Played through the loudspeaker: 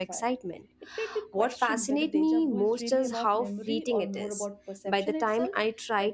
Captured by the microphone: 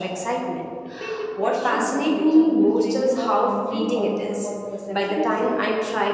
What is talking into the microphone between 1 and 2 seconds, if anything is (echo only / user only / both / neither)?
echo only